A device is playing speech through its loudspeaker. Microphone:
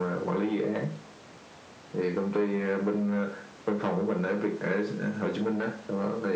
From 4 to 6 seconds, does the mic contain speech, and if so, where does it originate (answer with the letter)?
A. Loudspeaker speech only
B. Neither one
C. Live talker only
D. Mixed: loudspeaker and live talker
A